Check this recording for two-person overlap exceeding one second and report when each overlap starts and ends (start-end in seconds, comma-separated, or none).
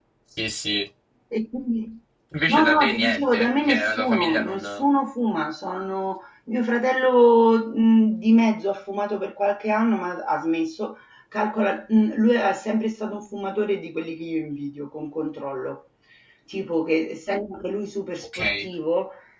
2.5-4.6